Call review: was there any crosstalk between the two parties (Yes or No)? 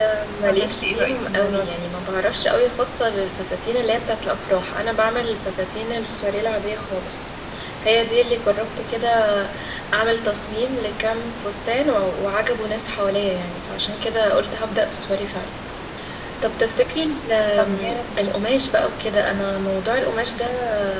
Yes